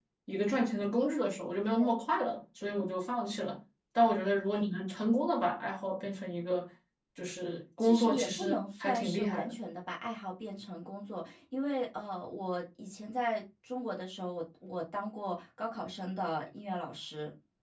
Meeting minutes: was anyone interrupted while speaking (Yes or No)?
Yes